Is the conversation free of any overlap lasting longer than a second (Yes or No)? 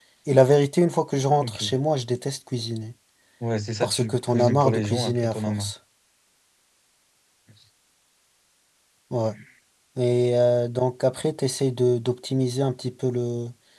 No